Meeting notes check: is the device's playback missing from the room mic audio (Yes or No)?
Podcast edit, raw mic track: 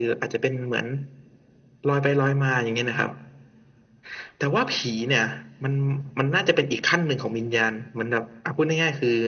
No